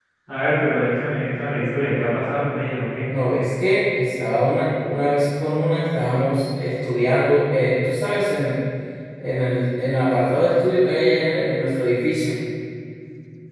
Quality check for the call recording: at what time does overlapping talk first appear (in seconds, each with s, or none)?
none